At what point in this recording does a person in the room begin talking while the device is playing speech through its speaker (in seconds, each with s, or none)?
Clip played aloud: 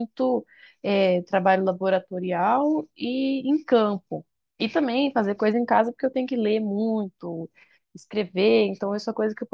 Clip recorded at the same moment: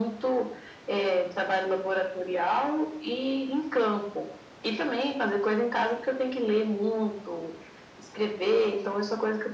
none